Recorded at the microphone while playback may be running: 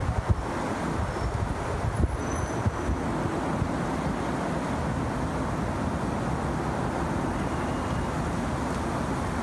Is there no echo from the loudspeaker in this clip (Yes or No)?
Yes